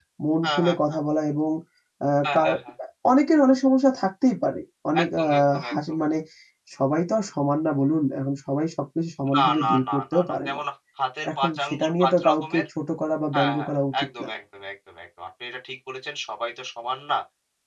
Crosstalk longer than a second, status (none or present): present